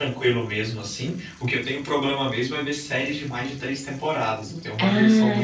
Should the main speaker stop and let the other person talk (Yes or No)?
Yes